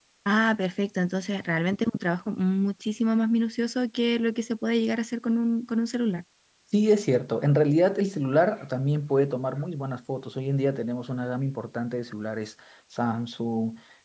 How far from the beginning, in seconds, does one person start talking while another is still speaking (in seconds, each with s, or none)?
none